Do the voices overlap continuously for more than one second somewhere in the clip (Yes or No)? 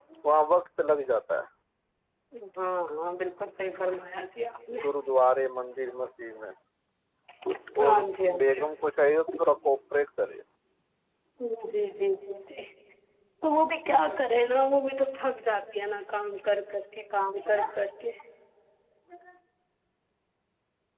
No